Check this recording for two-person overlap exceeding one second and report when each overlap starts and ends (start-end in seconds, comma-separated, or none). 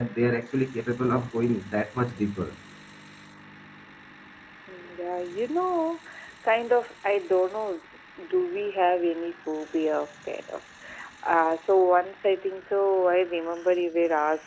none